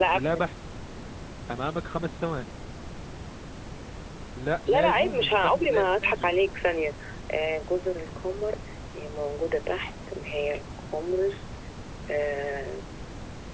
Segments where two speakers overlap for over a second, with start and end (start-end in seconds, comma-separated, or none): 4.7-6.3